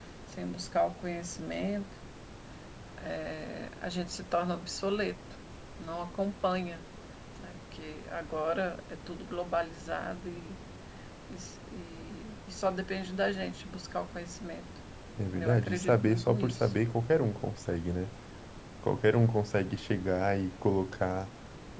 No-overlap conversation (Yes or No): No